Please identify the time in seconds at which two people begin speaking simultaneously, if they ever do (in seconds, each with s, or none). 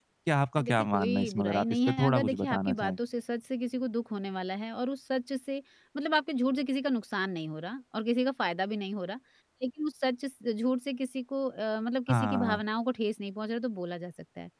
0.6 s